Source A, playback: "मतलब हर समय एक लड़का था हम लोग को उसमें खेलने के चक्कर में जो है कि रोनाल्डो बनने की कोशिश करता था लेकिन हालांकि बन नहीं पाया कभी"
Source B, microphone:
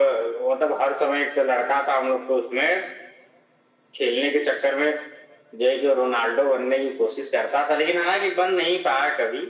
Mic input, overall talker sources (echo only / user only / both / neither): echo only